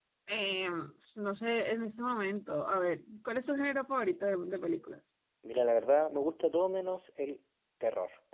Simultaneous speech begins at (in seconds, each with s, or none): none